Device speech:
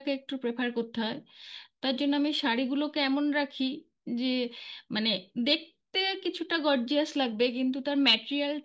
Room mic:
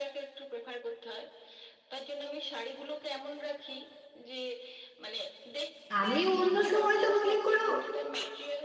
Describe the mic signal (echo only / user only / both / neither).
both